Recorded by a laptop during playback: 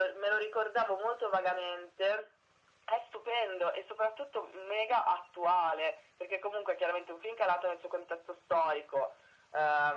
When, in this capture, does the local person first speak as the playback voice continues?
none

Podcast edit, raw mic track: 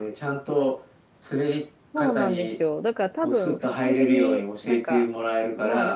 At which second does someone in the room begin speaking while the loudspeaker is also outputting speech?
1.9 s

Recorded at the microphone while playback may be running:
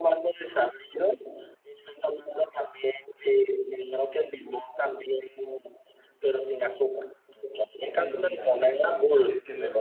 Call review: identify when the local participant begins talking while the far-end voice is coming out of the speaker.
7.7 s

